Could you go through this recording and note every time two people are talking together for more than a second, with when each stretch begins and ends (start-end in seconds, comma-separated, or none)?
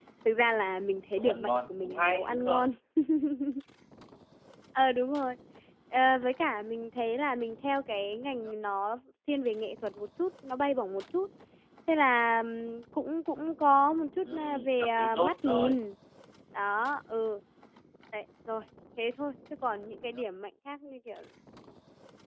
1.2-2.7, 14.2-15.8